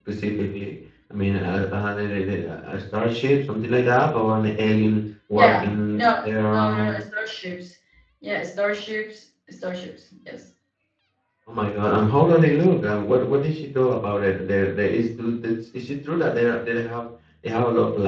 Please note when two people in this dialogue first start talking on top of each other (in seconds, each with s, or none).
5.3 s